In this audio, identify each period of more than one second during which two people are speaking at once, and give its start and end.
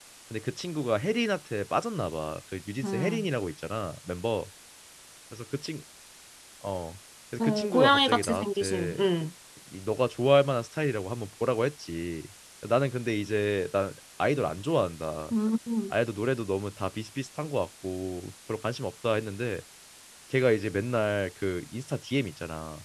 7.4-9.0

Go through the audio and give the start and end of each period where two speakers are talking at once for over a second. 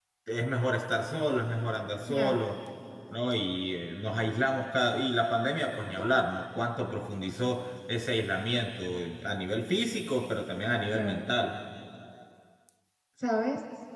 none

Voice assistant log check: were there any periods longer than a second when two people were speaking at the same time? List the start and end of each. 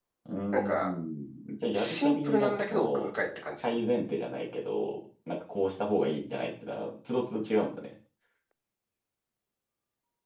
1.7-3.1

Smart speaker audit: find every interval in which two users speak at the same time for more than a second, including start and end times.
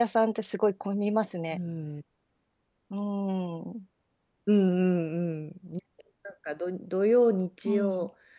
none

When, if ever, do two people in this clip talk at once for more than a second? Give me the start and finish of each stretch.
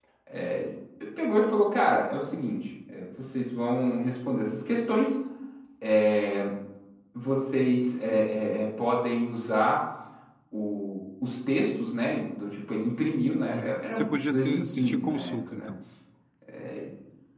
13.5-15.7

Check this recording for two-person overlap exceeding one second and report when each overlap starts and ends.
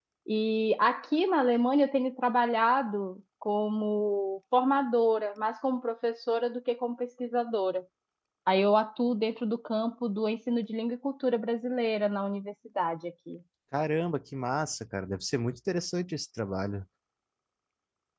none

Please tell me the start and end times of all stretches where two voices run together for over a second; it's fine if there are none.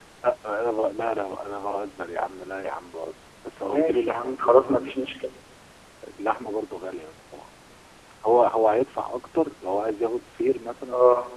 3.6-5.1

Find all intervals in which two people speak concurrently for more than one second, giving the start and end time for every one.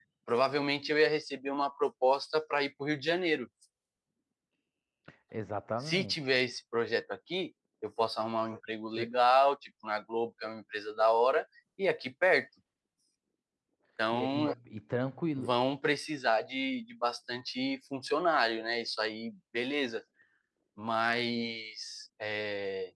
none

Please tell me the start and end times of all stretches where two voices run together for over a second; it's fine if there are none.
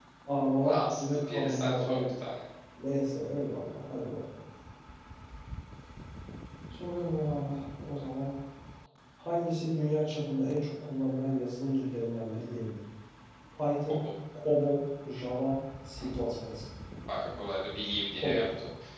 0.6-2.1

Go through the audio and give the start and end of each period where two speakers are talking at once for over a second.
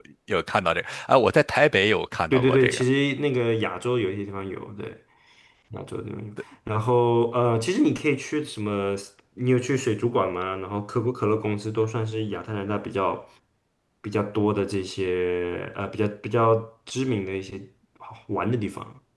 none

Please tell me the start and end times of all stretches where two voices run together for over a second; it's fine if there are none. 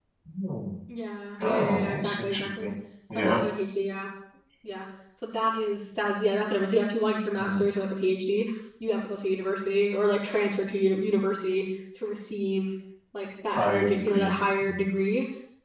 1.4-2.7, 13.6-14.8

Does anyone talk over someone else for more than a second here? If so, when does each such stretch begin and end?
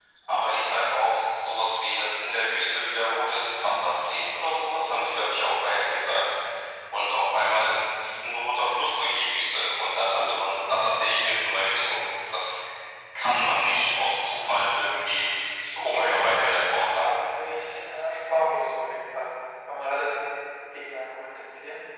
15.8-17.2

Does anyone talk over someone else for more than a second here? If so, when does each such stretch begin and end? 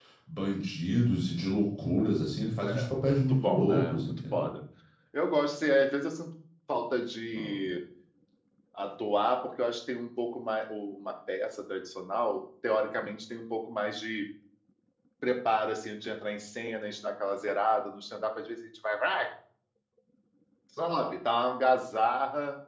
2.7-4.5

